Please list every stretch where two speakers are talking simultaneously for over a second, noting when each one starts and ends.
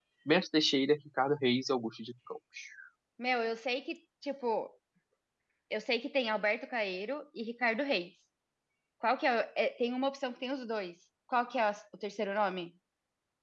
none

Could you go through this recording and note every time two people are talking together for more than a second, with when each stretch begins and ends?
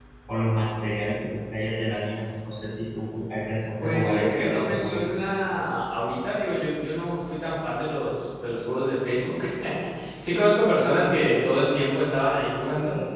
3.8-5.2

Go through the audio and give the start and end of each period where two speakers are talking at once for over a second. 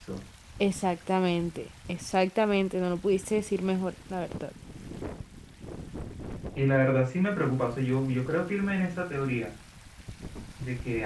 none

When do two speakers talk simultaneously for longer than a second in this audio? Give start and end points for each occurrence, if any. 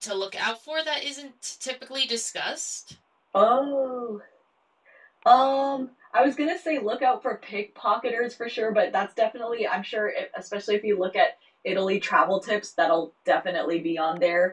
none

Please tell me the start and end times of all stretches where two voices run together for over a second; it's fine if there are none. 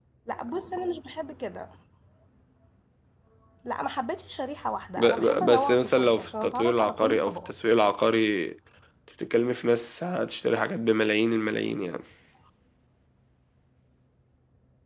5.0-7.5

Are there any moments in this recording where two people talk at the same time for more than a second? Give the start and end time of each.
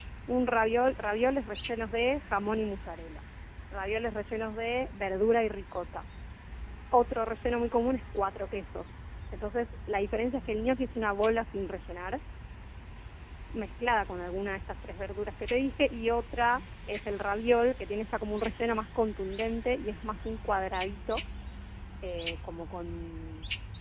none

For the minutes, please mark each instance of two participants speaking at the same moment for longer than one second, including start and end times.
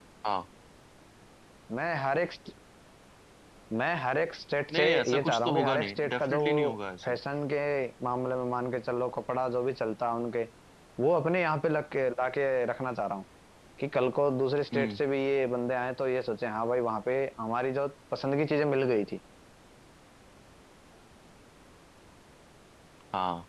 4.7-6.5

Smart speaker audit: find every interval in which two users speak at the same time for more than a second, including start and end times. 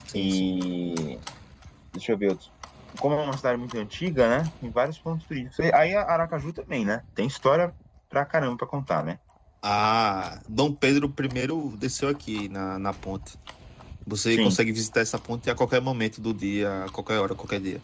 none

